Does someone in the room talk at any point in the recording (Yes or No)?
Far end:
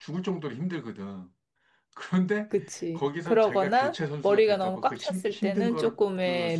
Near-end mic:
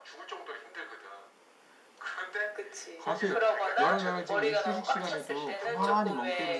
Yes